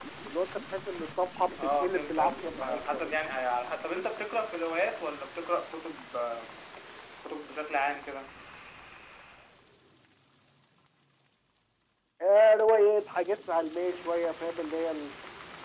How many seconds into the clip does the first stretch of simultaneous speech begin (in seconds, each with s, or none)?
1.6 s